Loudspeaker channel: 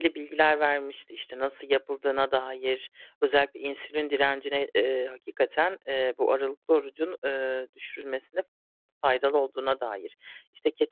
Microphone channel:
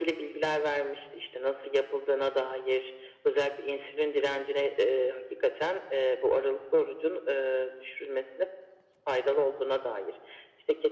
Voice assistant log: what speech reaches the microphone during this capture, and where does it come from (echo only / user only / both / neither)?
echo only